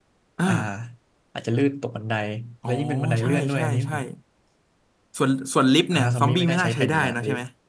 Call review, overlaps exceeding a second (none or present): present